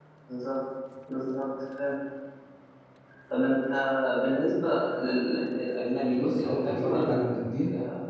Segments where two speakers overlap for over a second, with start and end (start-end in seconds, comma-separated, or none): 6.1-7.5